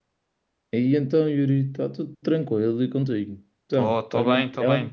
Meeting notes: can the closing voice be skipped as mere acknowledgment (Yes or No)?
No